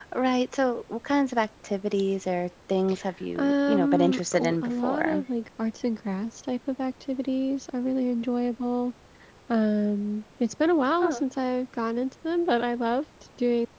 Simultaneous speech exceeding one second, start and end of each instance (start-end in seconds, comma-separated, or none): 3.4-5.2